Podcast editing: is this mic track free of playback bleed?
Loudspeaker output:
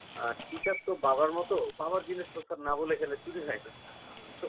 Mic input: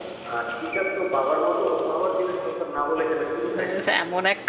No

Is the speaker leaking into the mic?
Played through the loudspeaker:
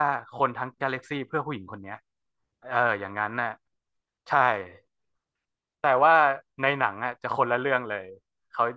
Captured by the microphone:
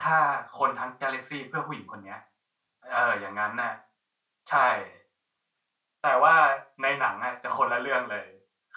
Yes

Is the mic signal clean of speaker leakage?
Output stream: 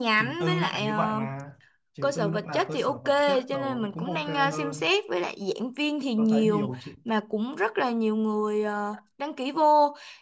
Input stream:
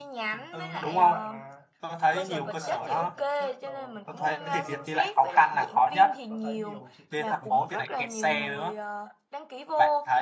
No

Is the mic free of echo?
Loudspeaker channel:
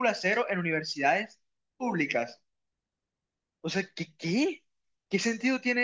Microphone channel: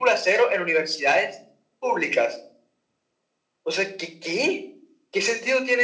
No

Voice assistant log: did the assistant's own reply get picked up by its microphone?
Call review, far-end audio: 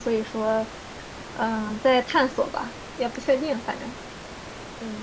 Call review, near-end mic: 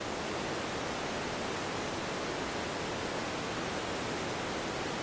No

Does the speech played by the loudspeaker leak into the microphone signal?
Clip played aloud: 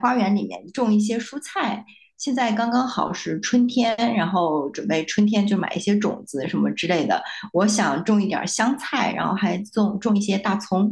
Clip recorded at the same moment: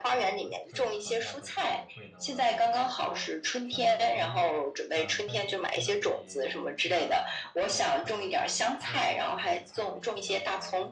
Yes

